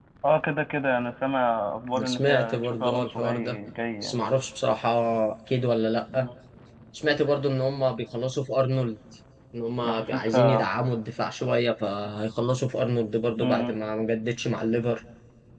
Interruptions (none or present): present